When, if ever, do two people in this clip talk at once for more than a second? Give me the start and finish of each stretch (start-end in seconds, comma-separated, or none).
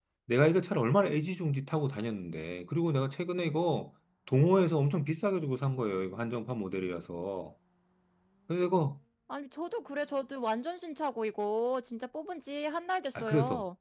none